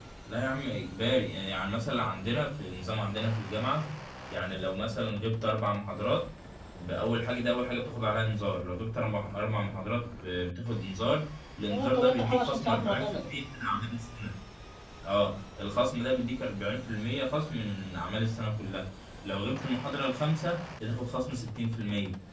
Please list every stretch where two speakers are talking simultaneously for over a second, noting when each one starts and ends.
11.7-13.3

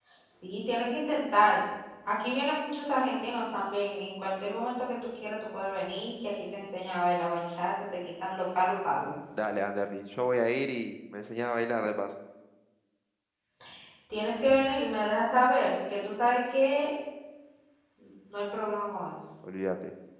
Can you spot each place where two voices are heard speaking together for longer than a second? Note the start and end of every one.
none

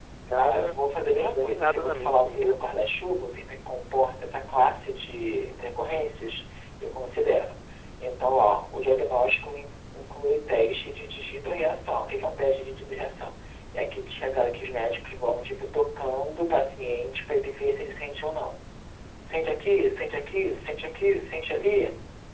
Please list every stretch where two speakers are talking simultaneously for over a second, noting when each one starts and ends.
1.2-2.6

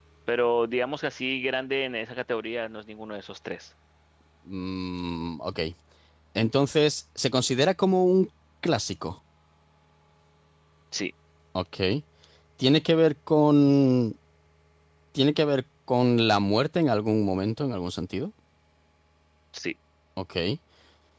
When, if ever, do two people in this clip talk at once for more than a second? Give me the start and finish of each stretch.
none

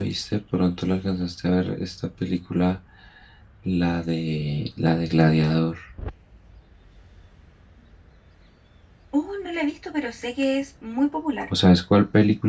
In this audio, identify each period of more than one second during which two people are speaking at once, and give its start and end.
none

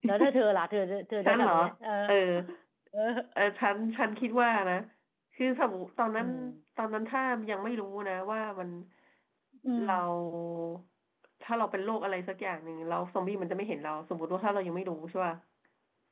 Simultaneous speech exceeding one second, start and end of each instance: none

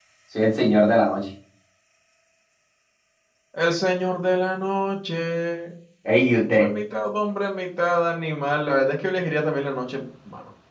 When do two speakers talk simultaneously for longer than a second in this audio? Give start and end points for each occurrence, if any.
none

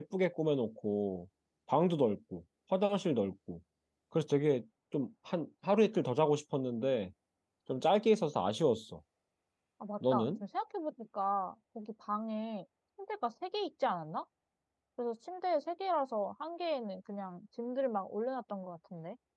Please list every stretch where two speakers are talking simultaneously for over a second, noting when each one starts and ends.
none

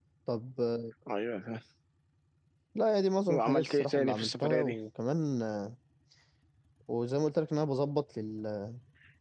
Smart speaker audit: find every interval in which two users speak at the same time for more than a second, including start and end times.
3.3-4.8

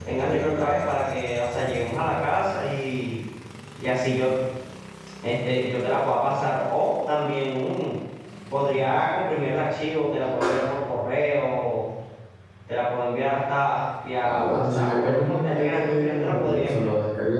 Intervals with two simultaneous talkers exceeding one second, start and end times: 14.2-16.9

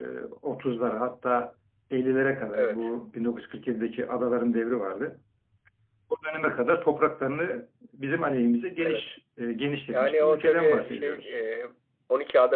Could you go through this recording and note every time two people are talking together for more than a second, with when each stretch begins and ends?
9.9-11.1

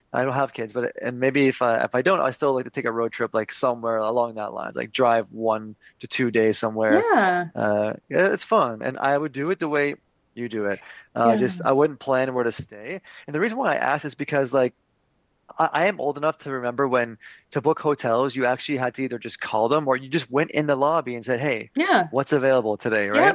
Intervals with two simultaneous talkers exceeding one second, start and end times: none

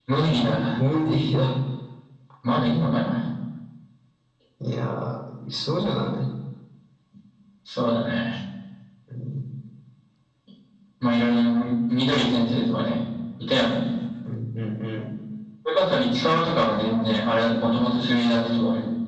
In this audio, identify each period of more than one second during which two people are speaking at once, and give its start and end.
none

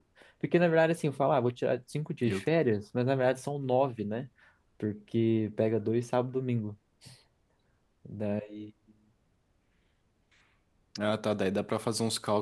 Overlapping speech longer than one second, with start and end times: none

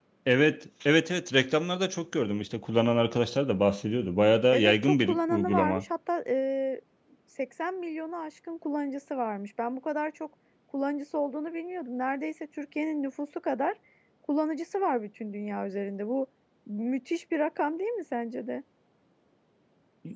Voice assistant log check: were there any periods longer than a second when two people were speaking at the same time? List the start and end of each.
4.5-5.8

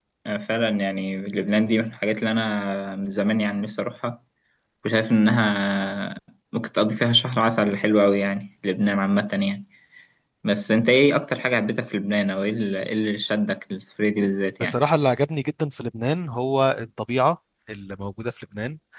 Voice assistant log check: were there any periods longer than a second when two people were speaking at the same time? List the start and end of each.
none

